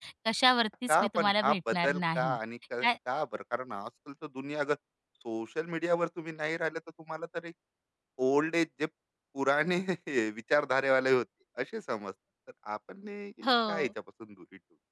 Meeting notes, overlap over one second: present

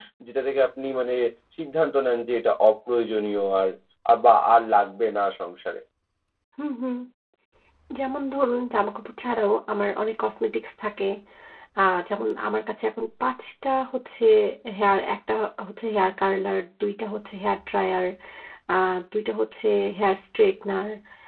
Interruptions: none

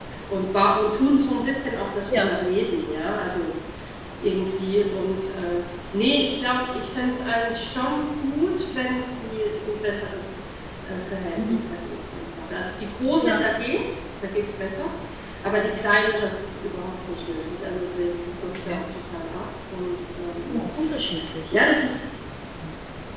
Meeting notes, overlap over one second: none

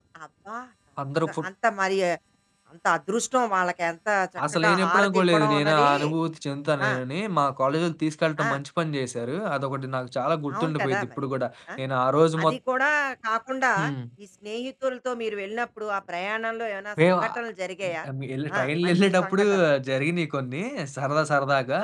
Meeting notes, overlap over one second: present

